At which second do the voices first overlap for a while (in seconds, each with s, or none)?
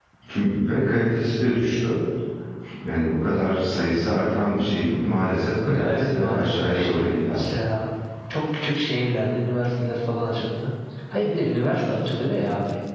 5.6 s